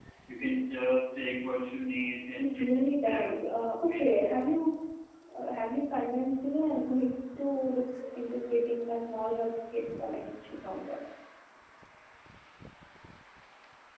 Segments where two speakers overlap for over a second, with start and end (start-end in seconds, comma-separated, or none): 2.4-4.3